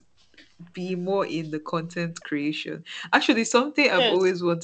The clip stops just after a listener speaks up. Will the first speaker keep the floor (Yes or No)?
No